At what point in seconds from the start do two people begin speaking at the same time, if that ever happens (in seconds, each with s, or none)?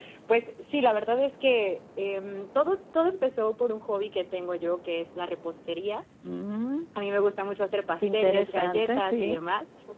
8.0 s